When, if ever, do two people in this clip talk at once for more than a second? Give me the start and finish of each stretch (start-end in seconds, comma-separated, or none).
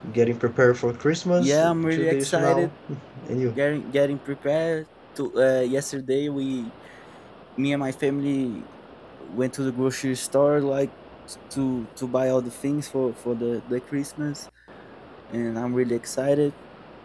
1.4-2.7